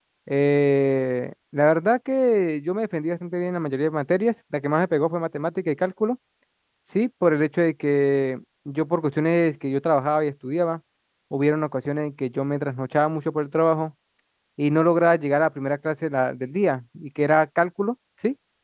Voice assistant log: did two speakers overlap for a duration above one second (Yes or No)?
No